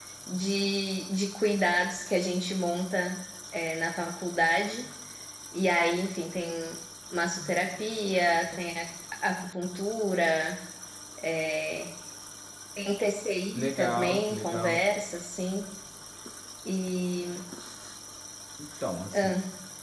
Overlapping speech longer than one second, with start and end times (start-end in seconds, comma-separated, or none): 13.6-14.8